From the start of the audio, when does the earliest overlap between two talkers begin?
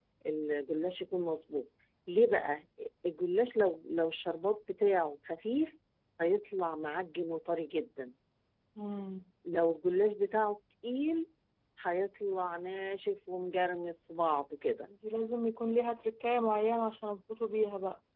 none

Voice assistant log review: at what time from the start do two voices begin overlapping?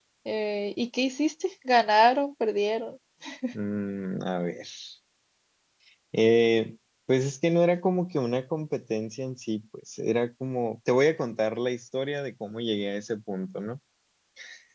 none

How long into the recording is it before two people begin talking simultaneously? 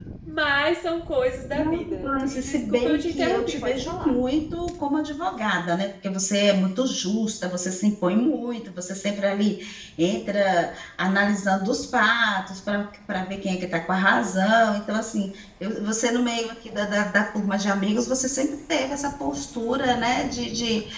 1.5 s

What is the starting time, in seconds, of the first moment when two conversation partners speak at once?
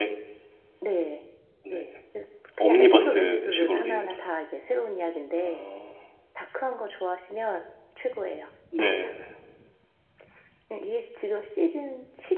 2.6 s

